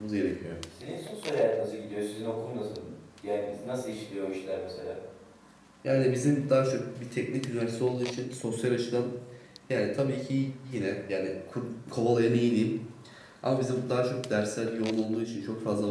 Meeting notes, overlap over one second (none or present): none